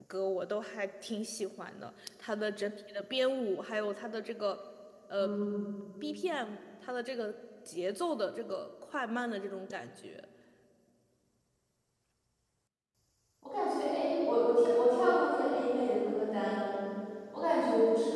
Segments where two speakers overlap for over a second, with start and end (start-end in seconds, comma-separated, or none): none